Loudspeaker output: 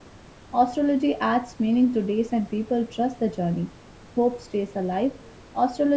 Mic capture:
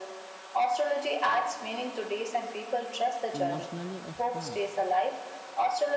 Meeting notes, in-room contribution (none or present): present